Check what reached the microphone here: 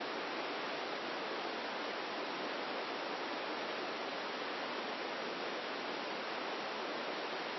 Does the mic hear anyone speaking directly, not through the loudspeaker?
No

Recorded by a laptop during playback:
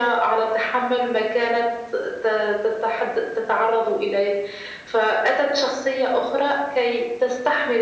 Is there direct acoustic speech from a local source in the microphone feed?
No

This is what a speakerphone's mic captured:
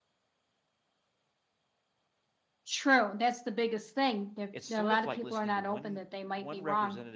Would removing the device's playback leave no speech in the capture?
No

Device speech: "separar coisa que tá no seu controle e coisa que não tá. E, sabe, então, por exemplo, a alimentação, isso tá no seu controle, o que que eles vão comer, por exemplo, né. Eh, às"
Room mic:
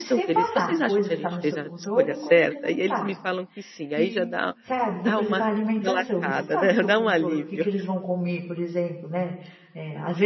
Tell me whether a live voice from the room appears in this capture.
Yes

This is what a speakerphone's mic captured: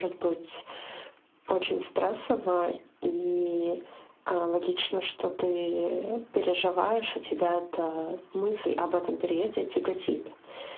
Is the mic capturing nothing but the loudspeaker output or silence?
Yes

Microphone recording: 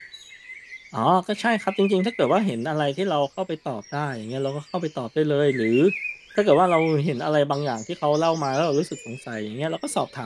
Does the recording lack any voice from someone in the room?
No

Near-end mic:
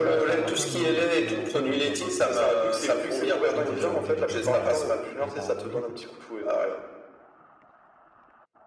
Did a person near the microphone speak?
Yes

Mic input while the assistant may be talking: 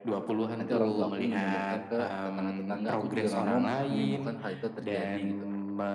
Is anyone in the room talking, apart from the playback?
Yes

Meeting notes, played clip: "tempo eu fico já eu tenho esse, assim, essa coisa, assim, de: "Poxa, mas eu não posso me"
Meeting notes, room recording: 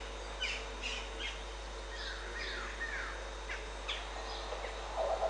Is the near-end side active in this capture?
No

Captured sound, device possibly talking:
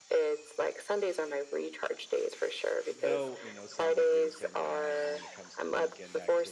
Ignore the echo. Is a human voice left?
Yes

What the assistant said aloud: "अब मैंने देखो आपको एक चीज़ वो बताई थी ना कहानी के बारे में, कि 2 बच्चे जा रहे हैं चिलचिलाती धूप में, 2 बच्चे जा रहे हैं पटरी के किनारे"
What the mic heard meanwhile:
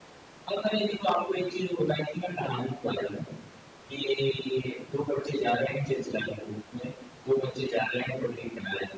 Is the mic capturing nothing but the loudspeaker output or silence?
Yes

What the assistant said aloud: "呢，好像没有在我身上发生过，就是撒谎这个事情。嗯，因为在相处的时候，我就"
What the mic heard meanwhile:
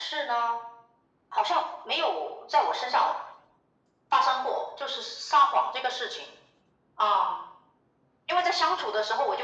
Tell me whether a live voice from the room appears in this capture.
No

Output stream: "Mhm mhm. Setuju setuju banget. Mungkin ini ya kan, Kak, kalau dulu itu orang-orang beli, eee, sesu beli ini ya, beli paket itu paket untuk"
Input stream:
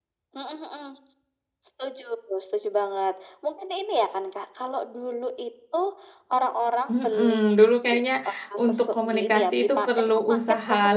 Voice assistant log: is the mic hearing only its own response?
No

